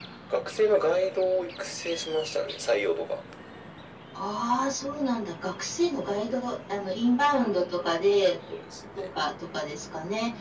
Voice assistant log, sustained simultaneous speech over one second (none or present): none